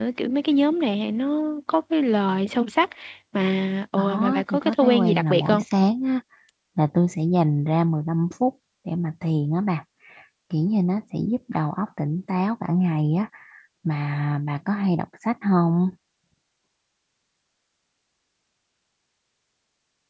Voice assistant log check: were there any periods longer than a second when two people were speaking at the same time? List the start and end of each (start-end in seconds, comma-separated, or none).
4.0-5.6